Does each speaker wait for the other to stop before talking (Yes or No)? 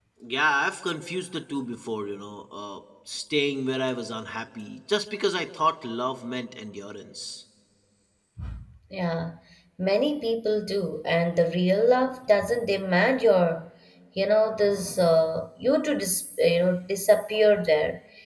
Yes